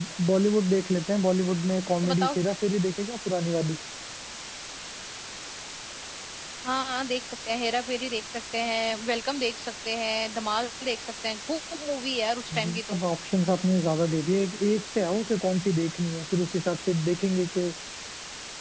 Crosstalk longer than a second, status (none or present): none